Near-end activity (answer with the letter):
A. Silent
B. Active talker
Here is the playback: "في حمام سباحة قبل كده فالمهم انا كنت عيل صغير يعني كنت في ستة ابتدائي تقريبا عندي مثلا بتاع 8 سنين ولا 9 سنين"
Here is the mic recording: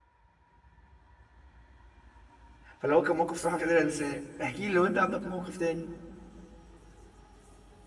B